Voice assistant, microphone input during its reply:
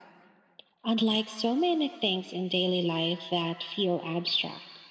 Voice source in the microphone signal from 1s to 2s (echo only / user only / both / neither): echo only